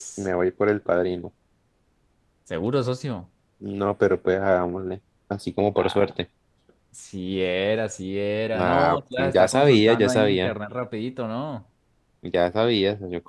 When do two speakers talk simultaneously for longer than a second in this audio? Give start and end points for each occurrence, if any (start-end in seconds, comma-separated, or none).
8.6-10.5